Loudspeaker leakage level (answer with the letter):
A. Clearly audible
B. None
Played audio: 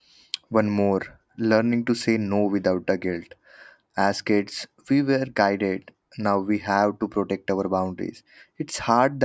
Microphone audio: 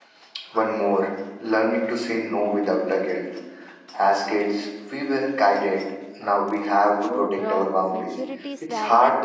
A